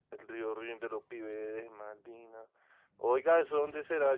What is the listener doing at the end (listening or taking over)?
listening